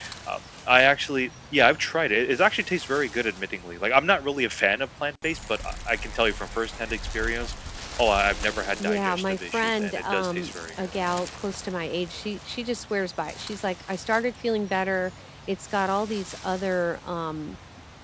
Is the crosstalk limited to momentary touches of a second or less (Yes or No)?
No